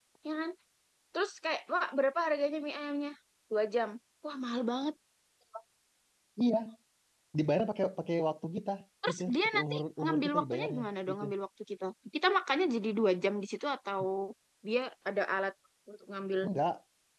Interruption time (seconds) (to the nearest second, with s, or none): 9 s